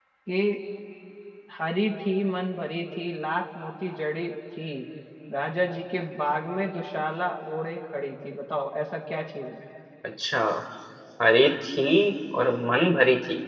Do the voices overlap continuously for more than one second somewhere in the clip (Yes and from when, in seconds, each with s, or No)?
No